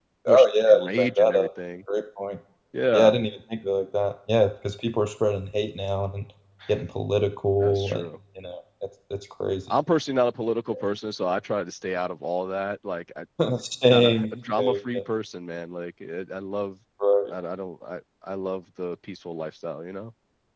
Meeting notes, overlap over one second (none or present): present